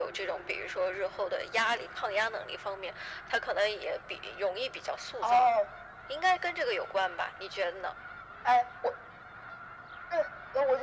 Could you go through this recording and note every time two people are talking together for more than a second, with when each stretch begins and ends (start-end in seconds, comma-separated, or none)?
none